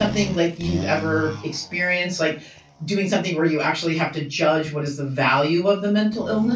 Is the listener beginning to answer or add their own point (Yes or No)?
Yes